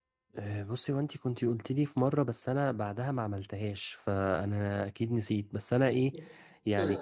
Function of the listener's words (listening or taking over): listening